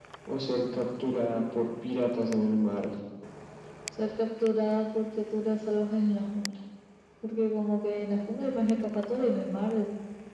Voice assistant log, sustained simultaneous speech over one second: none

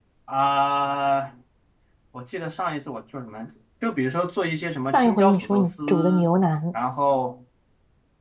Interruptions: present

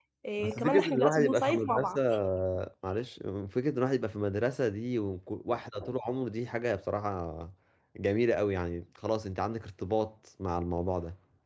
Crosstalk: present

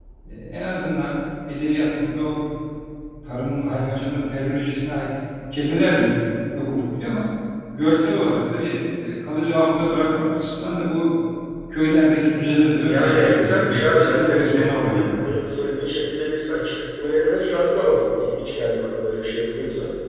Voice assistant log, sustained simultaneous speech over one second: present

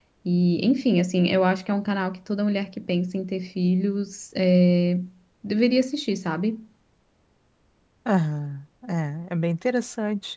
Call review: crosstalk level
none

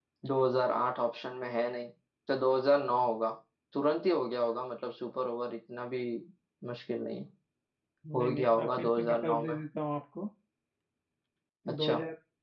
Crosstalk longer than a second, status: present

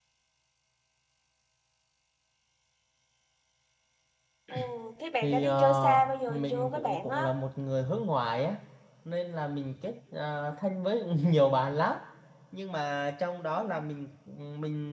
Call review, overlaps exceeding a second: present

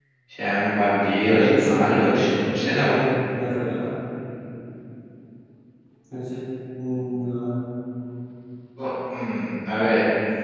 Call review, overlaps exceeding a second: present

